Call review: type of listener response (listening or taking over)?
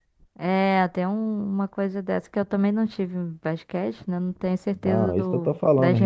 taking over